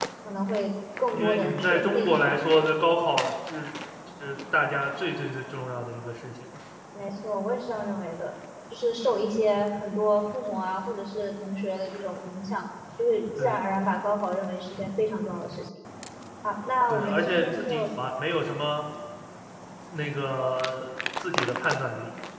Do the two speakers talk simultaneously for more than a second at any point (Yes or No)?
Yes